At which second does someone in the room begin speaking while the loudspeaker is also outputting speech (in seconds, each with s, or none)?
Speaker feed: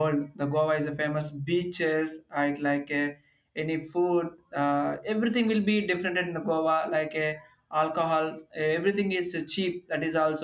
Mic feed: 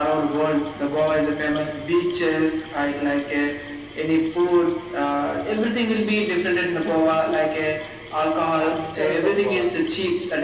8.6 s